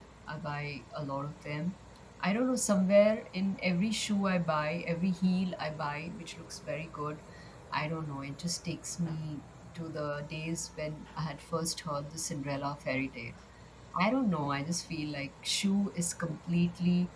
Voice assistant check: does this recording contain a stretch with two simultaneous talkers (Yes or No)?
No